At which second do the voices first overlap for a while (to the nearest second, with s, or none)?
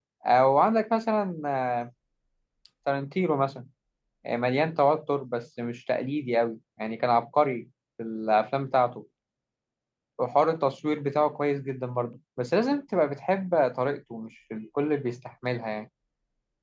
none